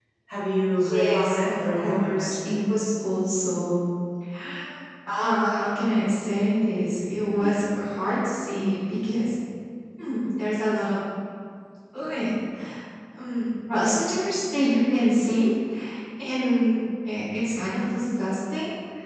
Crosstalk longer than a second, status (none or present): present